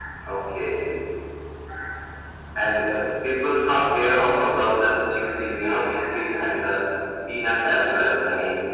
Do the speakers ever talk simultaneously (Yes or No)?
No